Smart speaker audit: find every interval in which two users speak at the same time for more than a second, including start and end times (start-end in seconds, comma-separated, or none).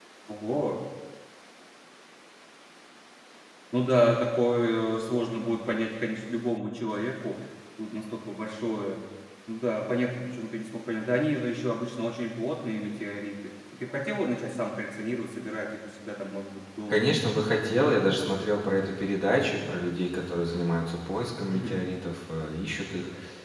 none